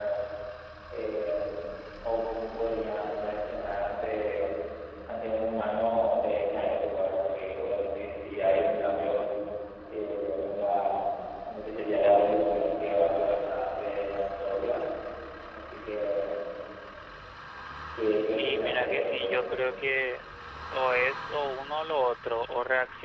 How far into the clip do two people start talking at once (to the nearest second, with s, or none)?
18 s